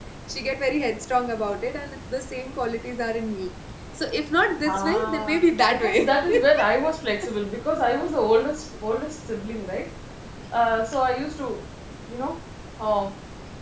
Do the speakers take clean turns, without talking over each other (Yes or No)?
No